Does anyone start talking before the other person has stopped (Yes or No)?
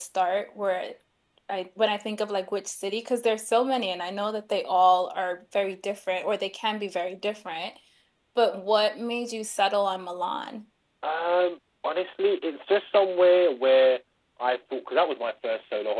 No